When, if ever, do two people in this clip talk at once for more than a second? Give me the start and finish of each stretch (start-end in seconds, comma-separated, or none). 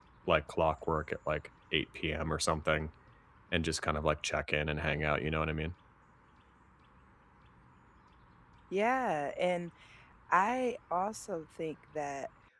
none